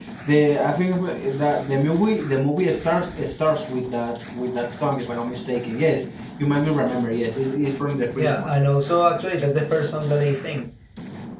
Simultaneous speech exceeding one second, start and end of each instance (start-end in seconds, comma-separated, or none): none